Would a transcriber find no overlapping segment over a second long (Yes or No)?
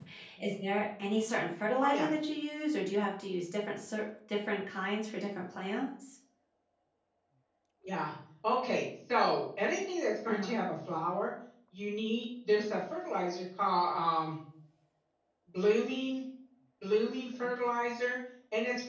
Yes